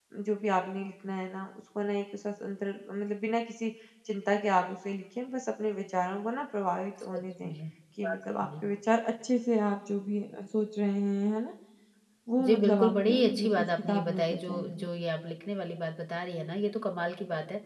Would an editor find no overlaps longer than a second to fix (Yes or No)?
No